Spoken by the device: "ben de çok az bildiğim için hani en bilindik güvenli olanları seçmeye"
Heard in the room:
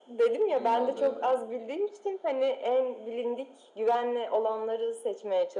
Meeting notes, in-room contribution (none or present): present